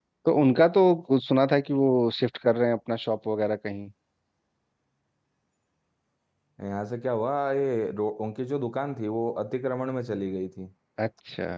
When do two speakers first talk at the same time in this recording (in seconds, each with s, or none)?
none